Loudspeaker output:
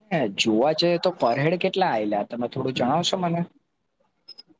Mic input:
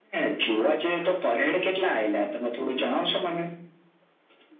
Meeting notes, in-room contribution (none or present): none